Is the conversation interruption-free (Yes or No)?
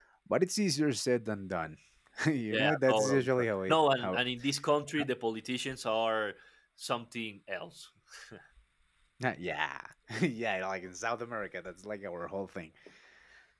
No